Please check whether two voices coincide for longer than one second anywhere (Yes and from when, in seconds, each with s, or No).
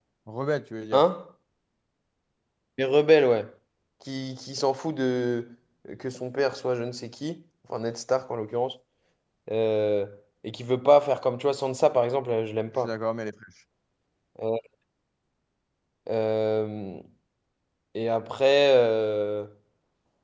No